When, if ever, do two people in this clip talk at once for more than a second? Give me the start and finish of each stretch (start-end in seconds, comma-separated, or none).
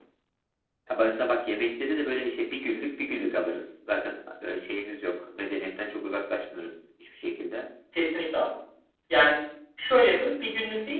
none